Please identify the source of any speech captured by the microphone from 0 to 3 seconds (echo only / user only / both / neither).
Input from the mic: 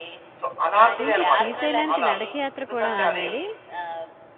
both